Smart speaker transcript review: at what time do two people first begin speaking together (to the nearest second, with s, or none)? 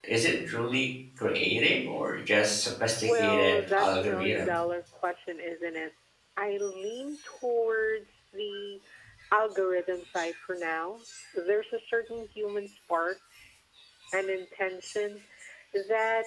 3 s